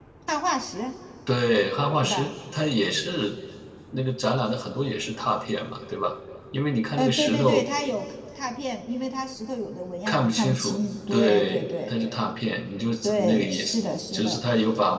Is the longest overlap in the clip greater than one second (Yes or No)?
Yes